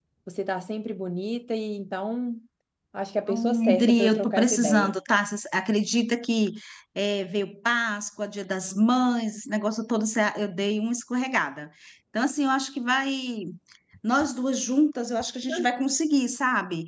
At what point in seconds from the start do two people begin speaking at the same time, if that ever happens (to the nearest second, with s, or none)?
3 s